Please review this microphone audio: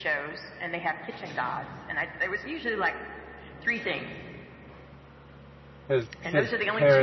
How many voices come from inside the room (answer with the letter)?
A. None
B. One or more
B